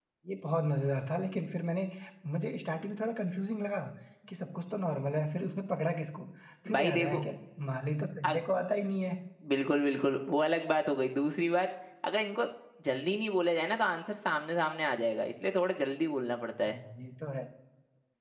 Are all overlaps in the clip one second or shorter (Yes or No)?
Yes